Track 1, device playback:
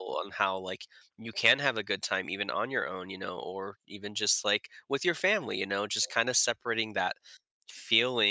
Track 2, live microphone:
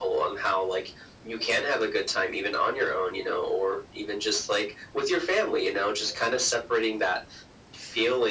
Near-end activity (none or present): none